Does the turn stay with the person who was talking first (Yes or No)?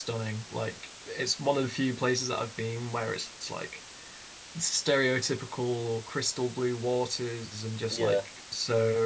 Yes